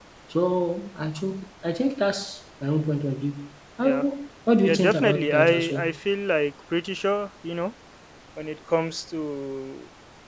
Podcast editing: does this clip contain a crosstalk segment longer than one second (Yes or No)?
Yes